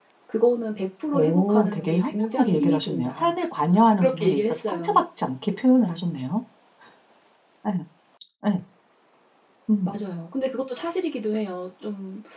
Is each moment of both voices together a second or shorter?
No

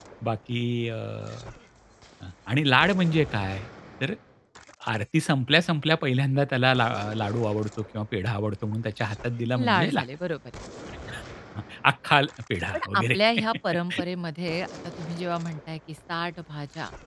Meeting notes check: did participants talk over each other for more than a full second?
No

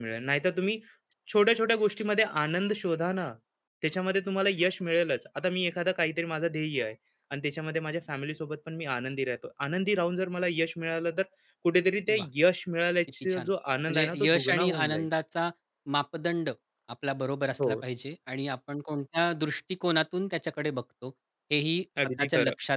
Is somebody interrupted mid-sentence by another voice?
Yes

